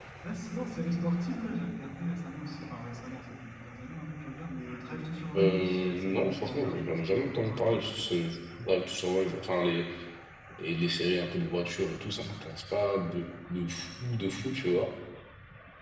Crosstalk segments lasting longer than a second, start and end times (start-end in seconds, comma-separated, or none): 5.3-7.7